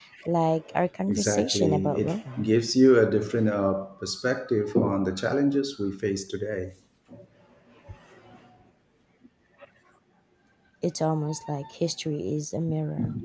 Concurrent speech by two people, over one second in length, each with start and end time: 1.1-2.5

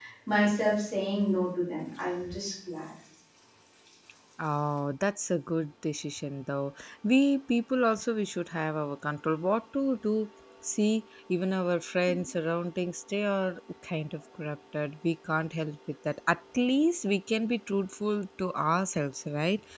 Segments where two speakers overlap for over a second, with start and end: none

